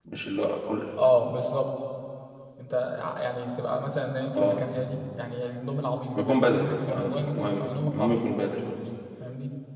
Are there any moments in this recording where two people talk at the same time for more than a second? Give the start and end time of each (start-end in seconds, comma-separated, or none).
6.1-8.3